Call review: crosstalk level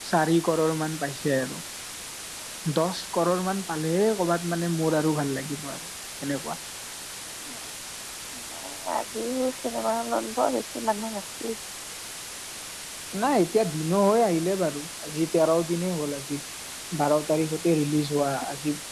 none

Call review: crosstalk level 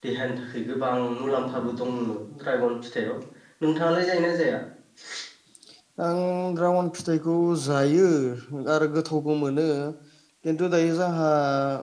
none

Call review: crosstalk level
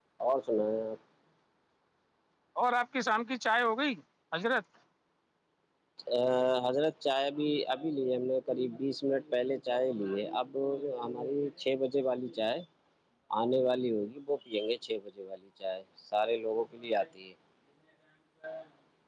none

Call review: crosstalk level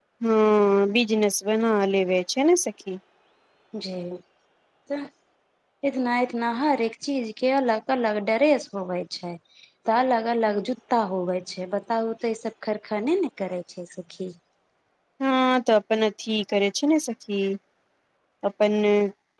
none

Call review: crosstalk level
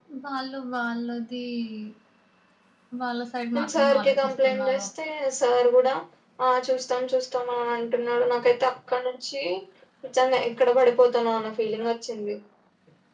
present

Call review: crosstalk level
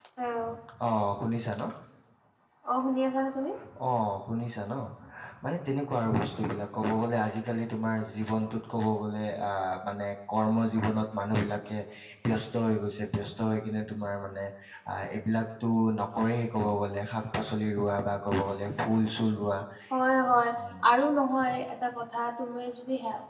none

